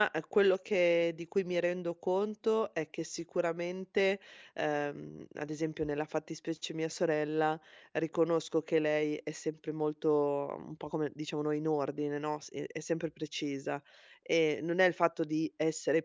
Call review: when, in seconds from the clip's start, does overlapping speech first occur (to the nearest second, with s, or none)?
none